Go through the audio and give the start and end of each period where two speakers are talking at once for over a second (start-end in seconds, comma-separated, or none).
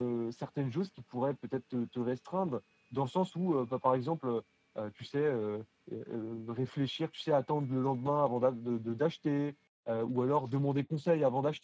none